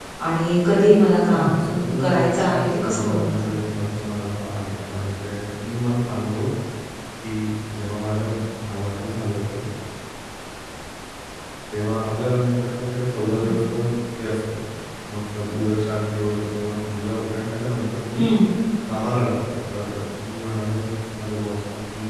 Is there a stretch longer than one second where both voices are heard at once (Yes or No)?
Yes